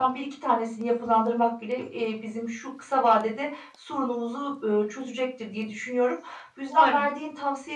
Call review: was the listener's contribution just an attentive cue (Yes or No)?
Yes